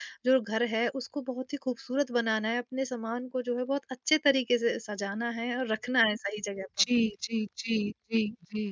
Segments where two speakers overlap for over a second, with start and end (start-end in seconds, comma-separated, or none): none